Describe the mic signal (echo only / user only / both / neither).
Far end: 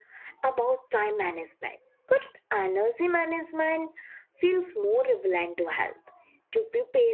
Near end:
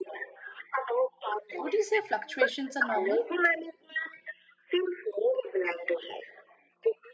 both